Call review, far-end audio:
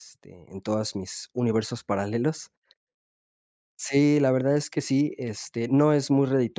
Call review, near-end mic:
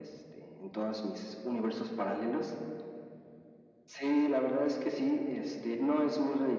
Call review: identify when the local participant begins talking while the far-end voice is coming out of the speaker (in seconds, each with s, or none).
none